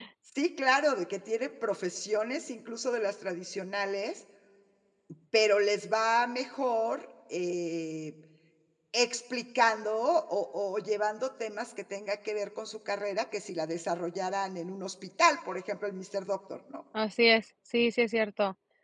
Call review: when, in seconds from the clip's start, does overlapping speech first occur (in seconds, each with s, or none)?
none